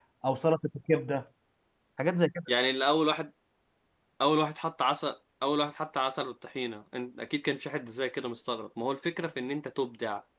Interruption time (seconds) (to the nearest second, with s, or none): none